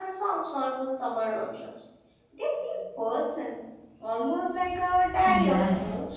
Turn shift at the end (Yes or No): Yes